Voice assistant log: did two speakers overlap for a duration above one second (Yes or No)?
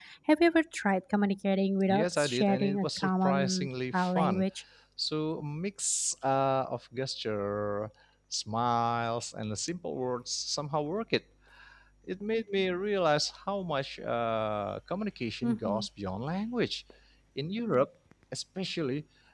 Yes